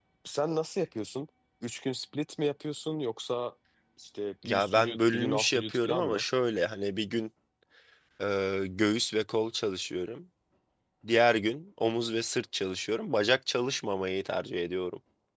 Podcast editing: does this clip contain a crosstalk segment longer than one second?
Yes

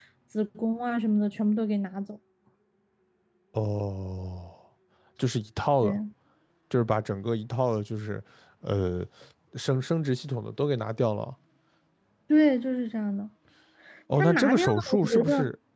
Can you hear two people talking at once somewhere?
Yes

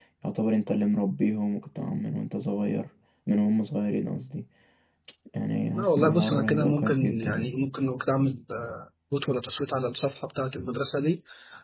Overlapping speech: Yes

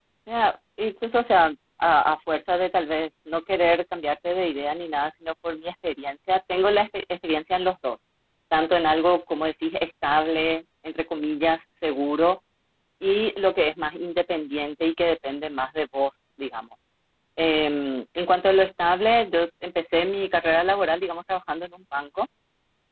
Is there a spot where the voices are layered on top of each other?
No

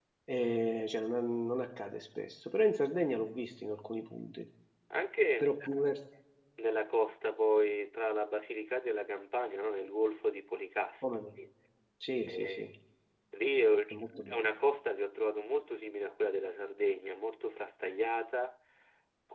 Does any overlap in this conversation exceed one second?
No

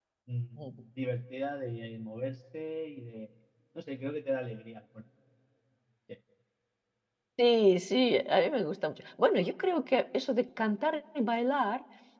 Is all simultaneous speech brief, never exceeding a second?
Yes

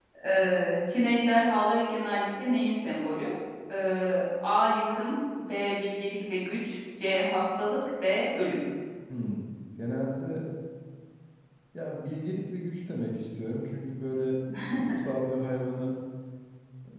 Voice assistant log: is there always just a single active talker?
Yes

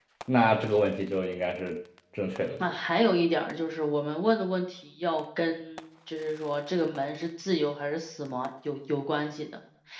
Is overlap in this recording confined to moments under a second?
Yes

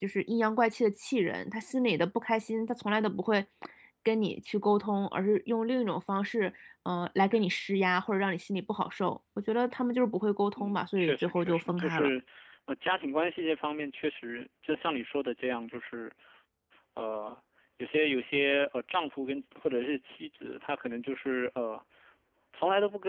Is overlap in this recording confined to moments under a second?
No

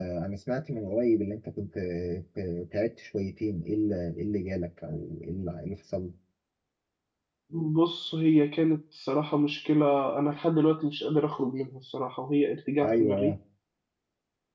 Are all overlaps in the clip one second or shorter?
Yes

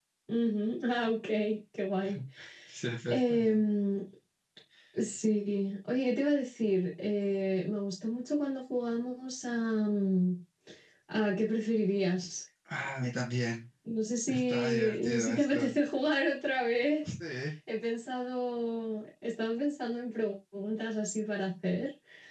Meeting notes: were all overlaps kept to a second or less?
No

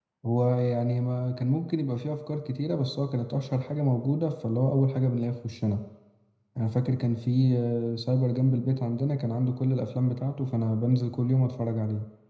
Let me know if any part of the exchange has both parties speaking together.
No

